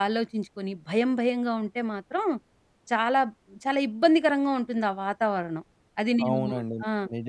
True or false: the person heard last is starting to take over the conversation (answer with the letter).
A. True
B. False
A